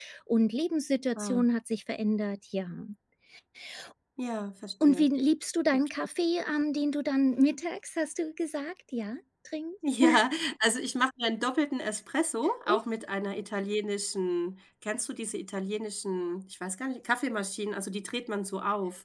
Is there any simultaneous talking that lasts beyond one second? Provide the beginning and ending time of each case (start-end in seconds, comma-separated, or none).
none